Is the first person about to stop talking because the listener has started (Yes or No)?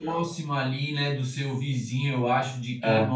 No